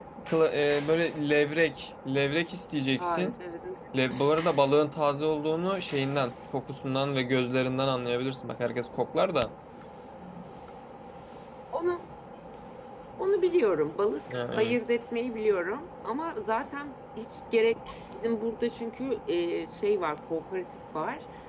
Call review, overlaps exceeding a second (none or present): none